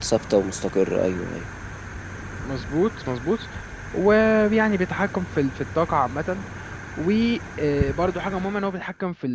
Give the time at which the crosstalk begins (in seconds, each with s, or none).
none